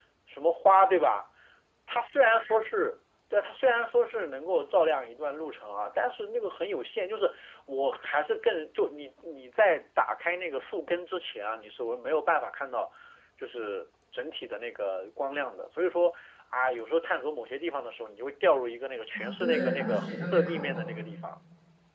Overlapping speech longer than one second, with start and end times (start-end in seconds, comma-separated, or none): 19.2-20.8